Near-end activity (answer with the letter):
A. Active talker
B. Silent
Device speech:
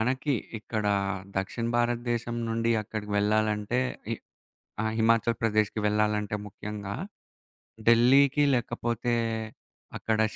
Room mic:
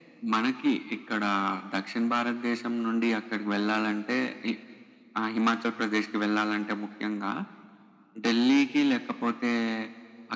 B